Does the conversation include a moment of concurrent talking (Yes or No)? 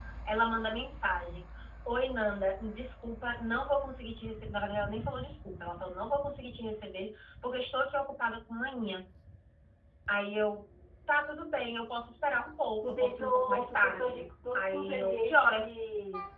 Yes